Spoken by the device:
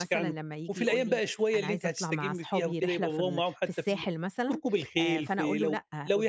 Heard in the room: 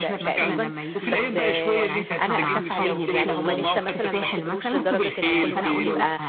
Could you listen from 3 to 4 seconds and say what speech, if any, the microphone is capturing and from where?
both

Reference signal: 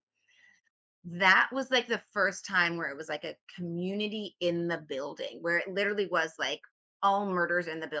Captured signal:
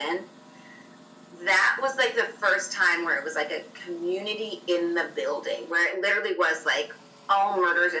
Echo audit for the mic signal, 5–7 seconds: echo only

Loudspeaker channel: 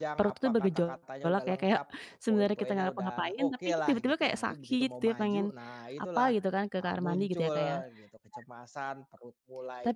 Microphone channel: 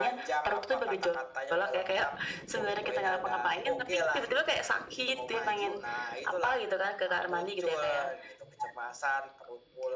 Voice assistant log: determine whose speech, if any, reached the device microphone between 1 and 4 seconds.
echo only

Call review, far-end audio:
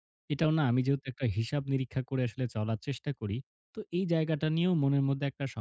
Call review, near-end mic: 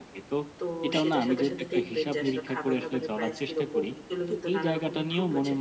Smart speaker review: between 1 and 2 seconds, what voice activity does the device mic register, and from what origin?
both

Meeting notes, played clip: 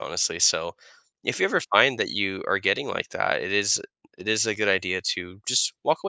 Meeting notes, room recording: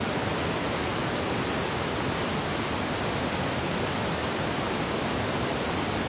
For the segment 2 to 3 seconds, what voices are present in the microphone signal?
neither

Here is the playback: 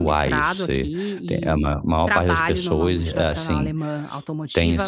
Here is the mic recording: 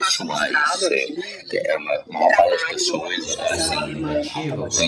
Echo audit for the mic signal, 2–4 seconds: both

